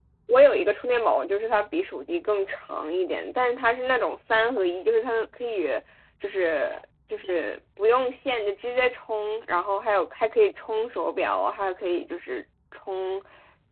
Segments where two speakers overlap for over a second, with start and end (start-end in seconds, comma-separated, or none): none